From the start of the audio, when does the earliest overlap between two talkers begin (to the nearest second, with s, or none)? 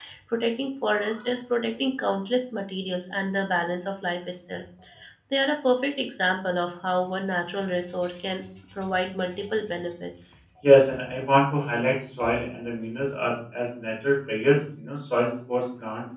none